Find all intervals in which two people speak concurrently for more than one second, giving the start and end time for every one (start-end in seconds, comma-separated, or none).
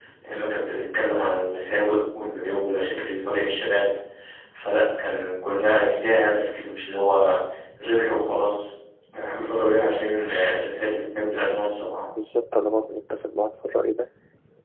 none